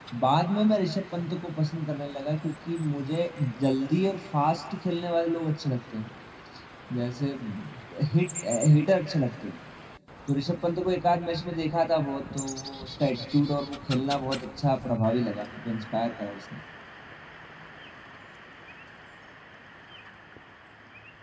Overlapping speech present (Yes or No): No